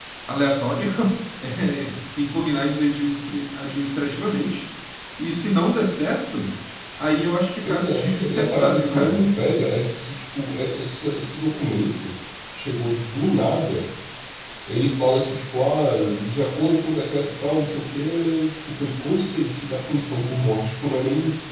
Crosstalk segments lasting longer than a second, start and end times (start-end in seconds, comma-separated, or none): 7.6-9.2